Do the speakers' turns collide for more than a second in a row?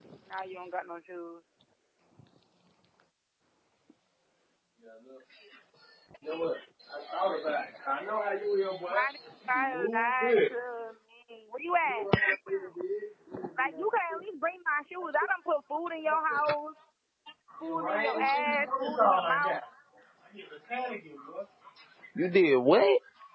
Yes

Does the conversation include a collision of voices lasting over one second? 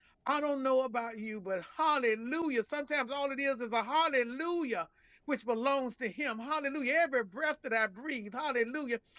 No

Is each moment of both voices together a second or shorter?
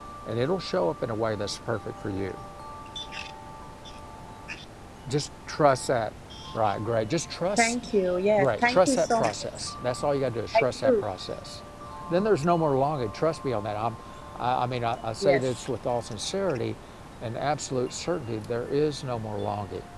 No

